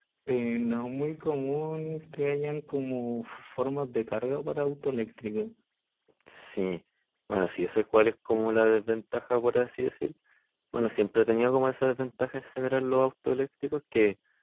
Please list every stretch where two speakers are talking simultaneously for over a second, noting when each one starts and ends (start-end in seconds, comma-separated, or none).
none